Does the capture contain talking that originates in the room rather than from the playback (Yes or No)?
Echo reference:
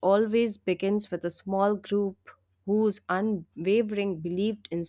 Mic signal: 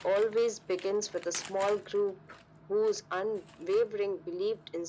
No